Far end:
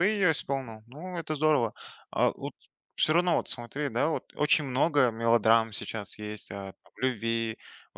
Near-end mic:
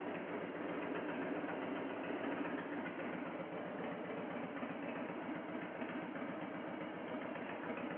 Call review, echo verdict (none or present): none